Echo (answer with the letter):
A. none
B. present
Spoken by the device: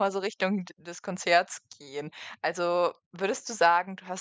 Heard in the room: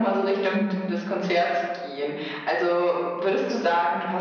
B